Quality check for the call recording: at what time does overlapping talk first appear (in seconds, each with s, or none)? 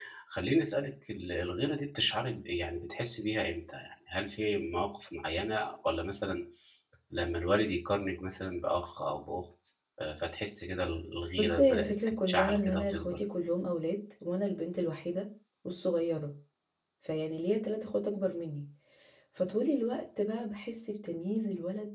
11.4 s